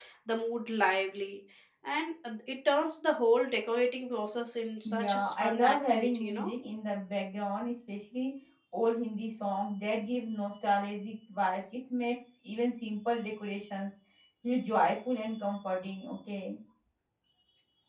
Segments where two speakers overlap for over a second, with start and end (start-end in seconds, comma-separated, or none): 4.9-6.5